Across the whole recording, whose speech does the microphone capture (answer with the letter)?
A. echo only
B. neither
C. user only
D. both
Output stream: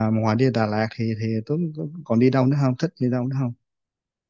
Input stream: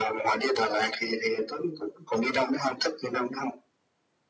A